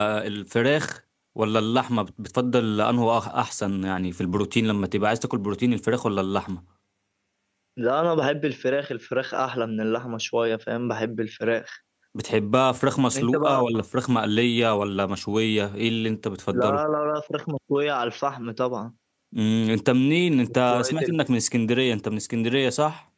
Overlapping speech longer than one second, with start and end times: none

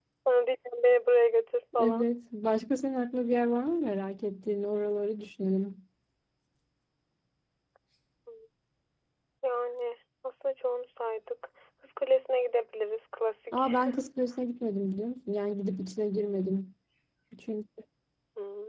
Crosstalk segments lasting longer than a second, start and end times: none

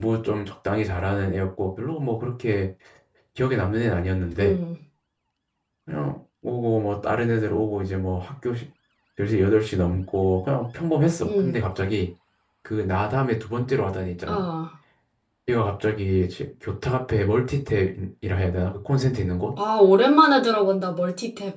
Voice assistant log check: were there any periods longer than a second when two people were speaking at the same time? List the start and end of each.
none

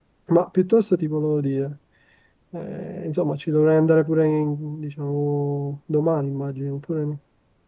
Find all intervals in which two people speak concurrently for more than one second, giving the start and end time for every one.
none

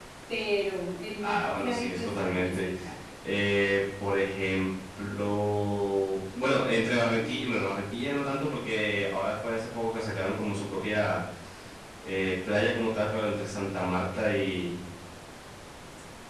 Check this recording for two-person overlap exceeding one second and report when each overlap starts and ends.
1.2-2.7

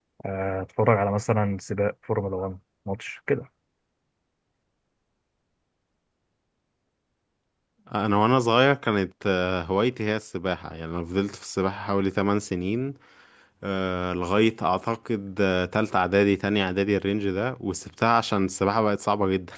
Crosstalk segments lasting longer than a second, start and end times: none

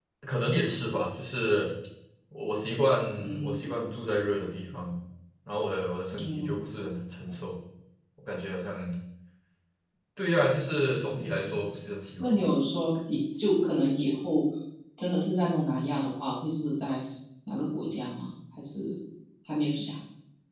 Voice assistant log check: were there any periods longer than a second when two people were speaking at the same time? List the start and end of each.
none

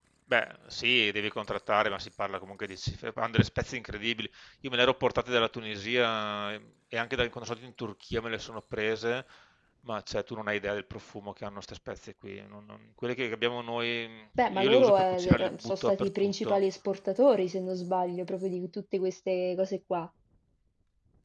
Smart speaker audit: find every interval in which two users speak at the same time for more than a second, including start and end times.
14.4-16.6

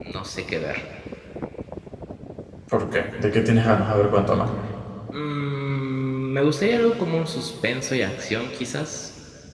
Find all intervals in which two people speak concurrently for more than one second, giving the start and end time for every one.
none

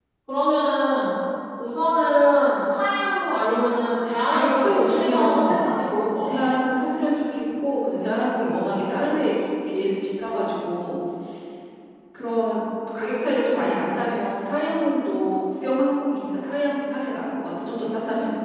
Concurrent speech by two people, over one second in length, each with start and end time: 4.3-5.7

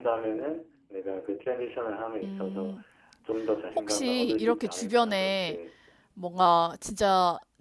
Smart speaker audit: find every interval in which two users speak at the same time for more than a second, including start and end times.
3.8-5.6

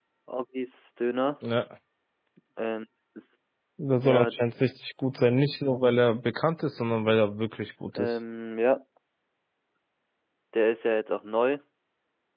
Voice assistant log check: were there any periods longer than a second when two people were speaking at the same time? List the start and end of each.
none

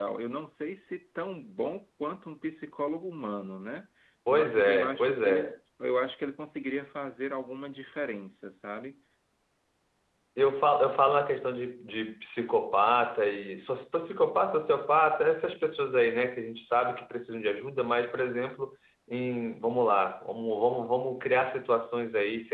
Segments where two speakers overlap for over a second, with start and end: 4.3-5.5

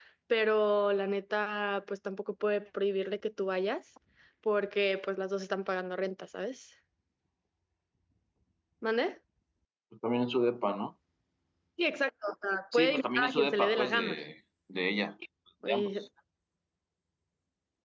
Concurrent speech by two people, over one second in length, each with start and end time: 12.7-14.2

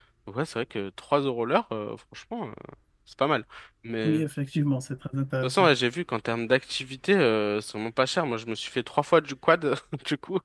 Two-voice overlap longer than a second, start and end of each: none

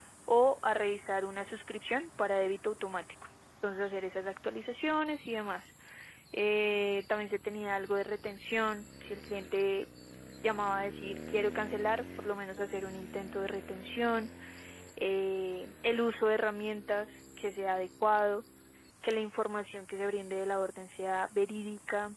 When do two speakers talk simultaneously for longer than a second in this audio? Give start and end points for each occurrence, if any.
none

